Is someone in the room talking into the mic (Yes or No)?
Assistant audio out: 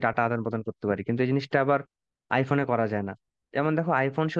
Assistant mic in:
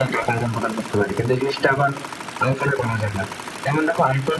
No